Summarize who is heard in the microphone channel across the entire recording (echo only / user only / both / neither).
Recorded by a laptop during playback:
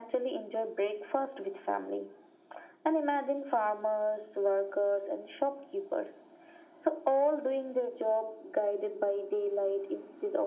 echo only